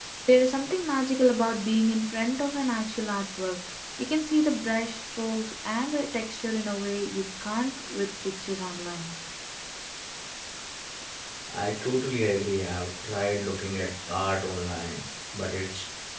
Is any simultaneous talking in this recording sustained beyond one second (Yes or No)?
No